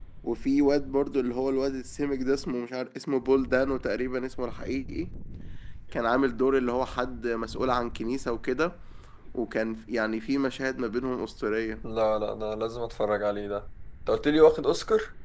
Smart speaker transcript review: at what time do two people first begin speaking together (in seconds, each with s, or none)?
none